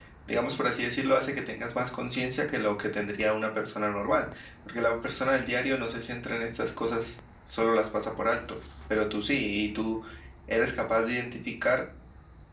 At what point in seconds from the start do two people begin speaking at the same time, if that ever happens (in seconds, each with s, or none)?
none